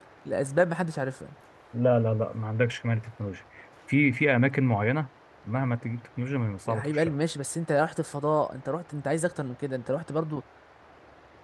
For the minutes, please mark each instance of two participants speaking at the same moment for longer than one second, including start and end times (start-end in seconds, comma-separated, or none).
none